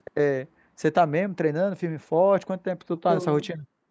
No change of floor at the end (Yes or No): No